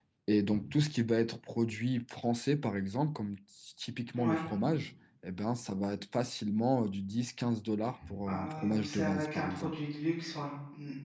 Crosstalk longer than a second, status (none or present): present